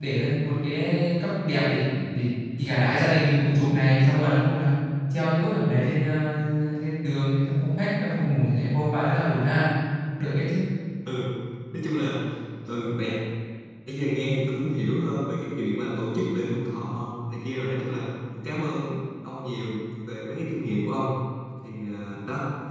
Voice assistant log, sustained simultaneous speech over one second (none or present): none